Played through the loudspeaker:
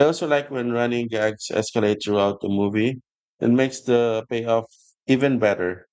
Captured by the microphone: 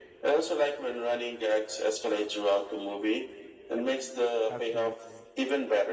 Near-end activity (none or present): present